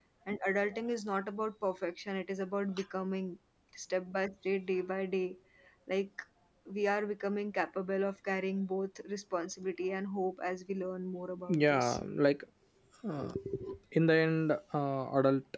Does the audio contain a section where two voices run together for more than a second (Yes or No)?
No